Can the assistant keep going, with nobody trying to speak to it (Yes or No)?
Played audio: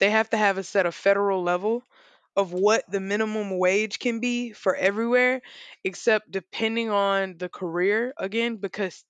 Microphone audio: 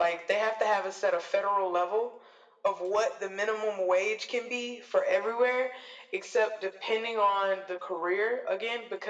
Yes